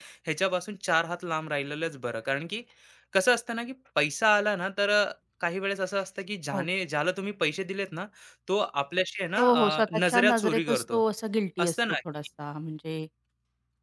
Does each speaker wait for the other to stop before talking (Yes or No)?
No